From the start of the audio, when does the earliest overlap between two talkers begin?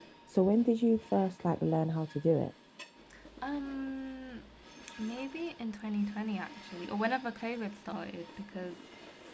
none

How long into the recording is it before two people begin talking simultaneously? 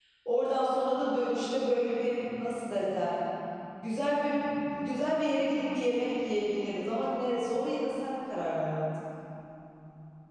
none

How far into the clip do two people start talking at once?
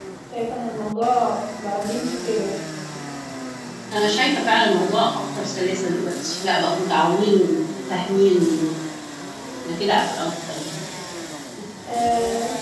none

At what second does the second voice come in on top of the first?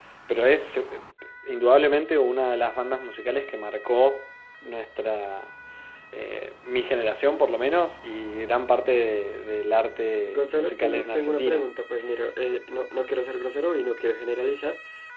10.3 s

